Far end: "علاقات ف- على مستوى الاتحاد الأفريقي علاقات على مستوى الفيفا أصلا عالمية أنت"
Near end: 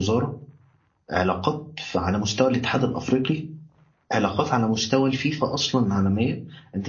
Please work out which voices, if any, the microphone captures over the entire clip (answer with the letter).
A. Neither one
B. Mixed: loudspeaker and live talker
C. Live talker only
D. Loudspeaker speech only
D